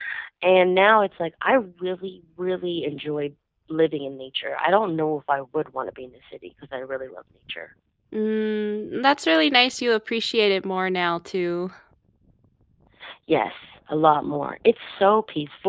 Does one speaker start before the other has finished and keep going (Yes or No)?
No